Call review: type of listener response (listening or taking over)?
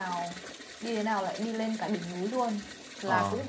listening